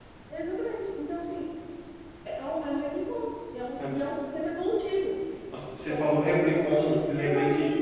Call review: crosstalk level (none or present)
present